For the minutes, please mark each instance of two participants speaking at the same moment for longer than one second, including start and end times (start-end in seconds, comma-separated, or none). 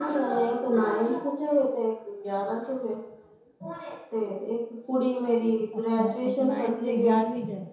5.8-7.2